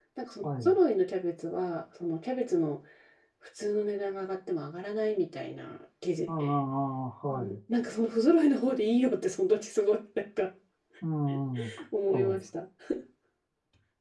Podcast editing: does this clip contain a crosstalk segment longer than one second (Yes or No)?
No